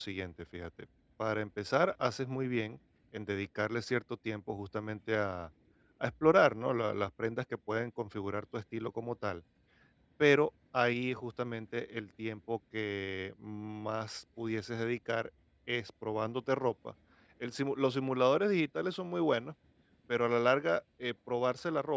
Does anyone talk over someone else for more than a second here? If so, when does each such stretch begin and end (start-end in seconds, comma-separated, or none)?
none